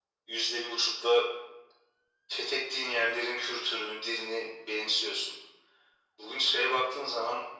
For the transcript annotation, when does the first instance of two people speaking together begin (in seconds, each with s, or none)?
none